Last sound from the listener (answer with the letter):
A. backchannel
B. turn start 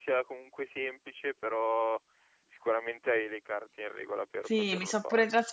B